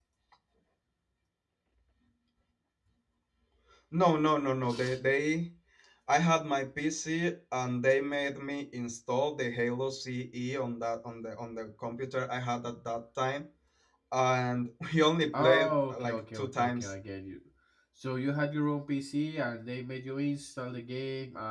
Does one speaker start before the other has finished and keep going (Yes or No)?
Yes